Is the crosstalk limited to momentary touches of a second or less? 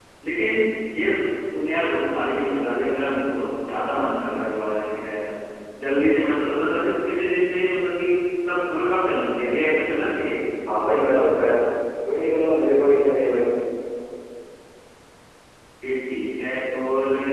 Yes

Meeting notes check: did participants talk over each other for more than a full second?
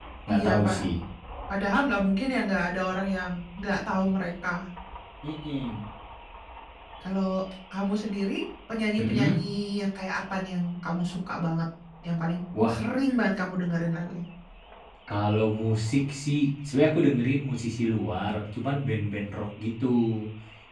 No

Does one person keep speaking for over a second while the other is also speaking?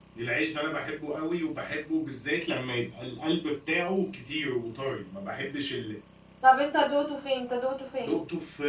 No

